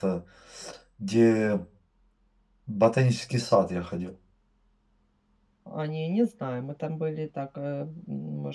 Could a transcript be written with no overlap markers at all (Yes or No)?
Yes